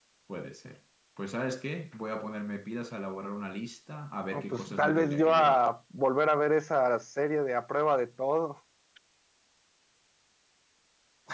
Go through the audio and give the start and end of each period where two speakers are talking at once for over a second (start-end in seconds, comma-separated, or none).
4.3-5.6